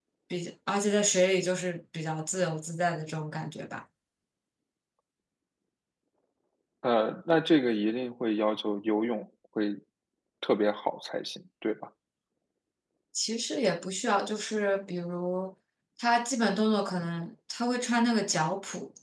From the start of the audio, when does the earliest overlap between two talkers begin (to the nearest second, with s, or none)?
none